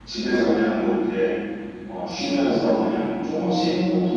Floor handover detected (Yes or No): No